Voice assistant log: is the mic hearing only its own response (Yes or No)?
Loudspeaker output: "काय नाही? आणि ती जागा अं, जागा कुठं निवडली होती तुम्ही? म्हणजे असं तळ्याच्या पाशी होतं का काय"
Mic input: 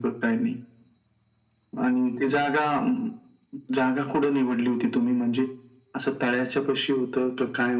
Yes